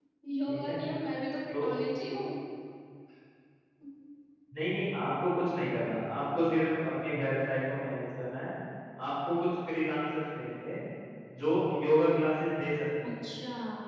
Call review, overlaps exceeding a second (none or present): none